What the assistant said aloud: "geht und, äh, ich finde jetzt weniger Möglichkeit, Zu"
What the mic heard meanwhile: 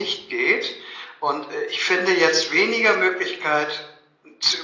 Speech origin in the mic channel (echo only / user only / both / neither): echo only